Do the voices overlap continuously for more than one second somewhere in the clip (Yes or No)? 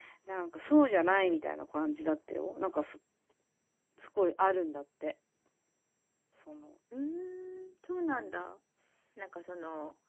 No